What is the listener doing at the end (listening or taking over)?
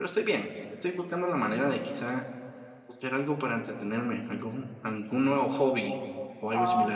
taking over